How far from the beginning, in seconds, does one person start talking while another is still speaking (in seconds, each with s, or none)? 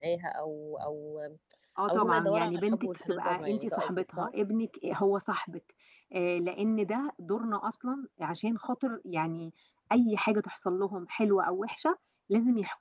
1.9 s